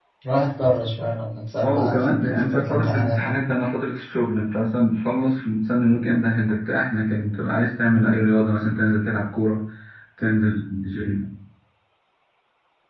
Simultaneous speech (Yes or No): Yes